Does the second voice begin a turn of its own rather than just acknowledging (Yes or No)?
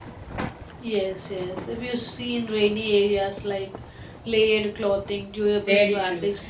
Yes